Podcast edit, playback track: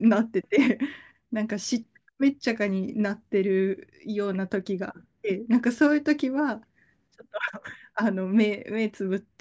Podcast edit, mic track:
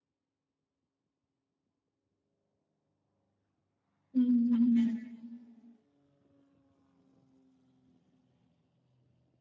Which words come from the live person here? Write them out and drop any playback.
うん。

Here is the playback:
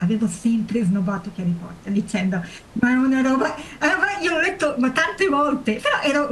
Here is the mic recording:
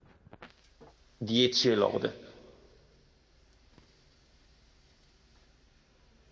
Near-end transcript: 10 e lode.

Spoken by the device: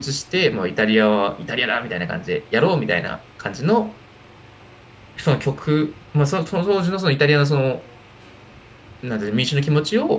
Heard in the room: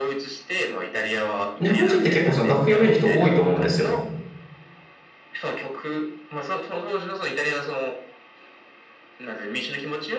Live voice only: 日本人って結構その楽譜読める人多いと思うんですよ。

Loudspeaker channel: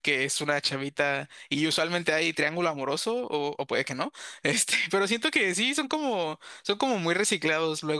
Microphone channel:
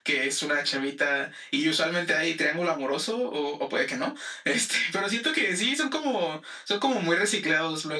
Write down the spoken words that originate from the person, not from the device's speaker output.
none

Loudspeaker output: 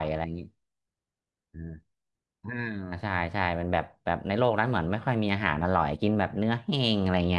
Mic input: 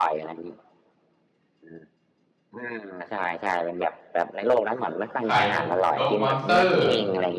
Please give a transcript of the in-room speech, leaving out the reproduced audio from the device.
ไข่พวกนกมอนสเตอร์

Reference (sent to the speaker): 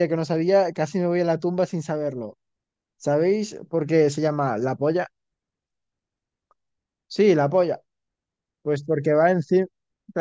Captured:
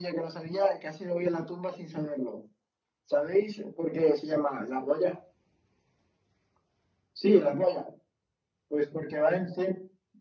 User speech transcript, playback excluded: none

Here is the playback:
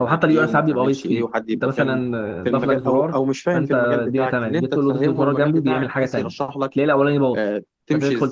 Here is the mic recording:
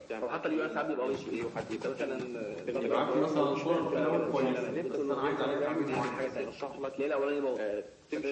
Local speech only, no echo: يبعت لي مثلا صوره في الاول كويسه بس انا عايز عليها تعديل معين

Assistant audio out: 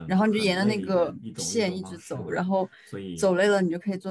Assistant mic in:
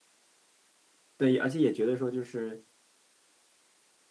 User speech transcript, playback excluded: 对，而且也觉得说就是，

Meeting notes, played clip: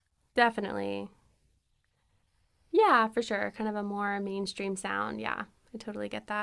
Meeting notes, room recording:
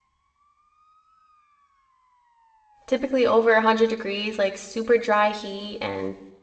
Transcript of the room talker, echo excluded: typically over 100 degrees, like super dry heat. And

